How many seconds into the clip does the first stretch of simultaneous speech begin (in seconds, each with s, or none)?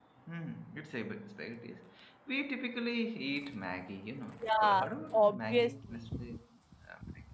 4.4 s